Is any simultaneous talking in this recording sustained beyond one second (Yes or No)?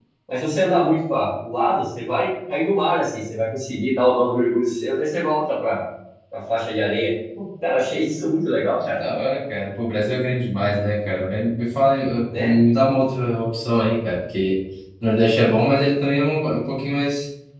No